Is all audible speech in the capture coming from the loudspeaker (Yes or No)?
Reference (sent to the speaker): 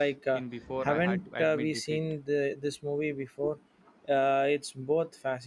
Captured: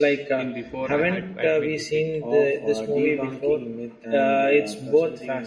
No